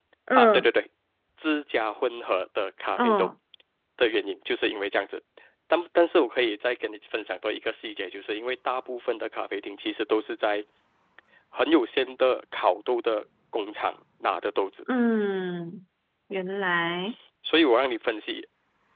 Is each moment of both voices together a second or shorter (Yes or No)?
Yes